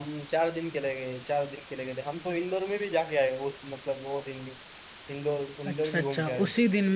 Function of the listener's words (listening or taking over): taking over